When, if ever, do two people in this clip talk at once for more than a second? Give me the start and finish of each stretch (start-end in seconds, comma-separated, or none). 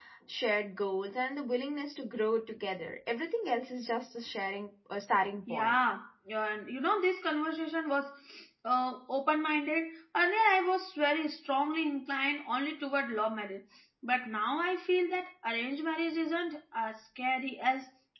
none